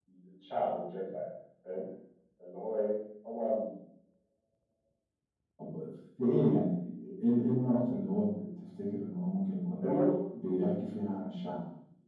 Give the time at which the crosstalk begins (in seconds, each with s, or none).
none